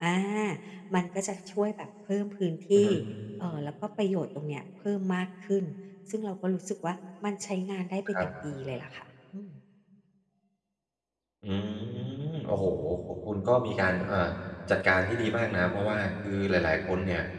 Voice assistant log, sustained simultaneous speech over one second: none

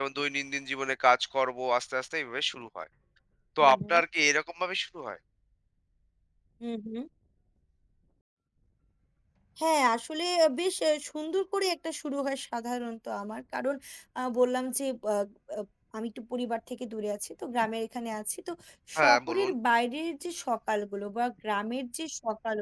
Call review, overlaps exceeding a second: none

